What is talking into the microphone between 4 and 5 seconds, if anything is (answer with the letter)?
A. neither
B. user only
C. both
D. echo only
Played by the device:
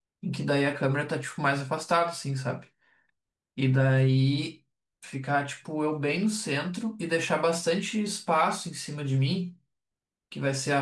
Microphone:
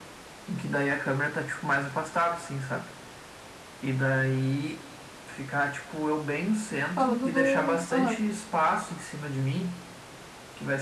D